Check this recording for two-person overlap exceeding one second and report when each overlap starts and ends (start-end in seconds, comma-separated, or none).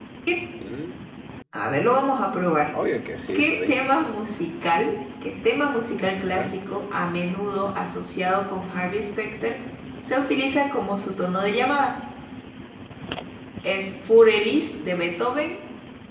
none